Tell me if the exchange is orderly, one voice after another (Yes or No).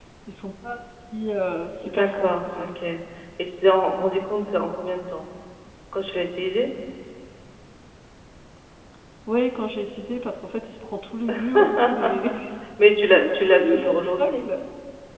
No